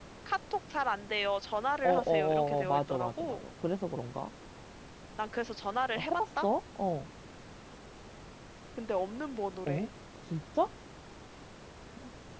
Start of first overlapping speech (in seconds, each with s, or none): 1.8 s